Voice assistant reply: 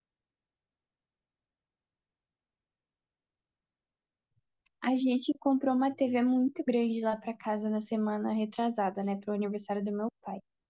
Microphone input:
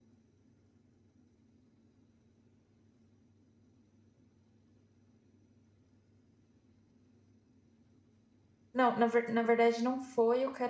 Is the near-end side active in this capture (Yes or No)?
Yes